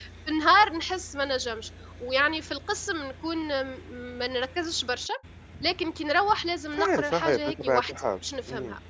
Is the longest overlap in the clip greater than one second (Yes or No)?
Yes